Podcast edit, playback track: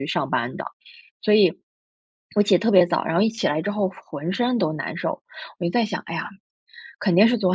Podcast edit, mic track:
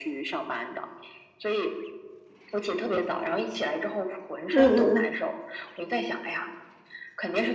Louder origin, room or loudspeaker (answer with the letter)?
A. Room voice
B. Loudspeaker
A